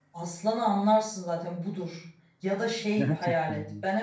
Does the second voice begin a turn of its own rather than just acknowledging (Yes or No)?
No